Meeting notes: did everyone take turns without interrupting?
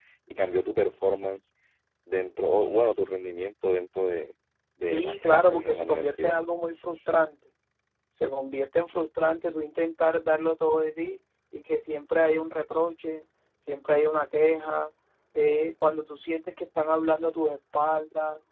No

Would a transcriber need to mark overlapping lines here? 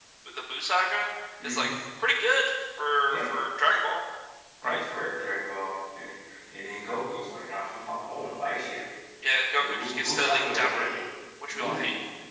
Yes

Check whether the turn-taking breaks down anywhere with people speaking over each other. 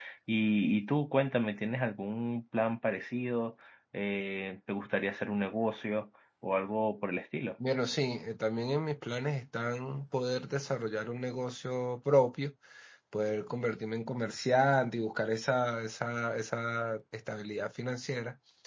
No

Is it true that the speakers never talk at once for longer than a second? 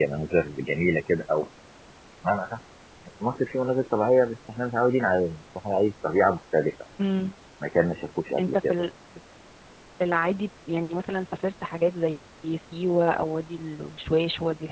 Yes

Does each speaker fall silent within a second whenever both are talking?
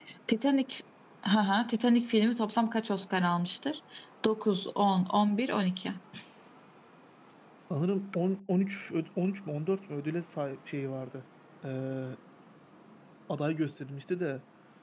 Yes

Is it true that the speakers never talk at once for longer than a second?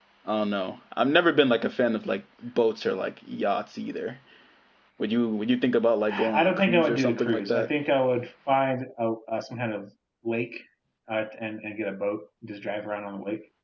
No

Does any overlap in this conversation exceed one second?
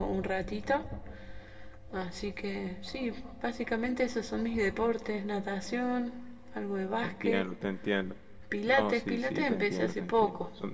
Yes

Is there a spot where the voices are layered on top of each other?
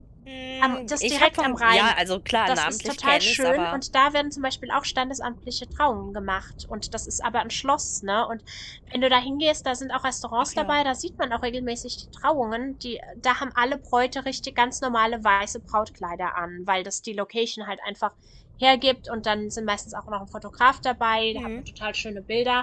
Yes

